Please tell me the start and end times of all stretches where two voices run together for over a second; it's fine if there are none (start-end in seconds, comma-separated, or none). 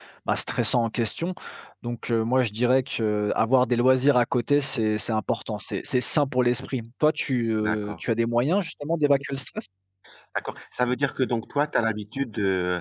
none